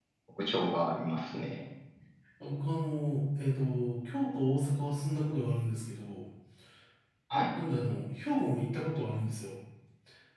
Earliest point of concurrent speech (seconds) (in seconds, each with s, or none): none